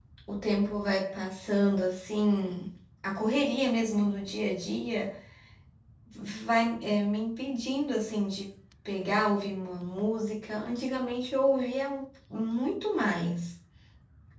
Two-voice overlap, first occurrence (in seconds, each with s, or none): none